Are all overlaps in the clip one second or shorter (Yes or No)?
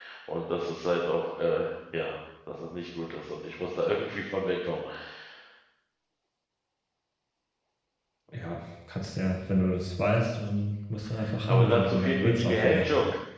No